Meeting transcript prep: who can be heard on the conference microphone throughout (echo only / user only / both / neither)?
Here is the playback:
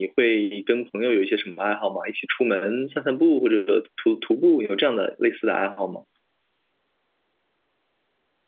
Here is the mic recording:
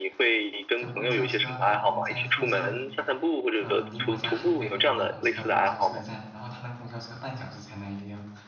both